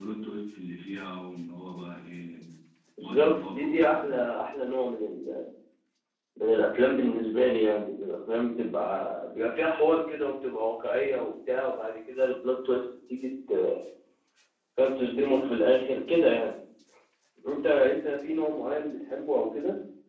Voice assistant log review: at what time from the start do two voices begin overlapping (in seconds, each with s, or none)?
3.0 s